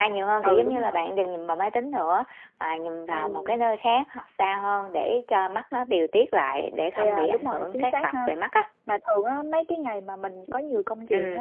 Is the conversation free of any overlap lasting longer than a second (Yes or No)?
No